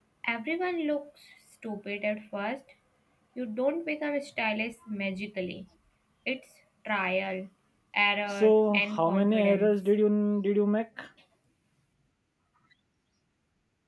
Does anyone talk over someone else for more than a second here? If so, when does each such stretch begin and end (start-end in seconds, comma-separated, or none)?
8.3-9.8